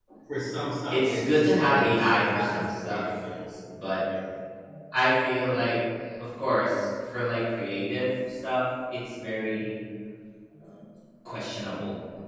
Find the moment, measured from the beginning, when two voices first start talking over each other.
1 s

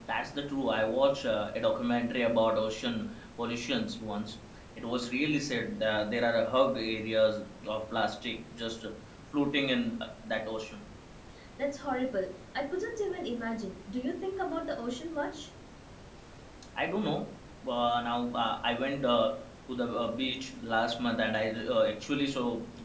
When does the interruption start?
none

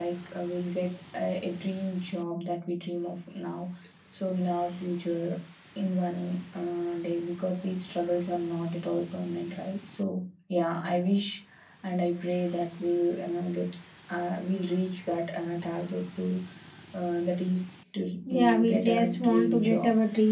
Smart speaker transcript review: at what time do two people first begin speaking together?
18 s

